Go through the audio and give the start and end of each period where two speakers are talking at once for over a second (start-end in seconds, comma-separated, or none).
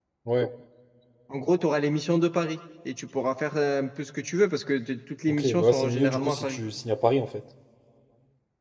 5.3-6.6